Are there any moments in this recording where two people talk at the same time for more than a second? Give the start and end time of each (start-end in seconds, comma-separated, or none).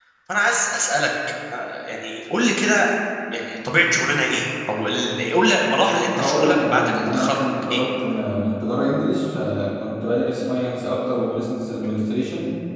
6.1-7.8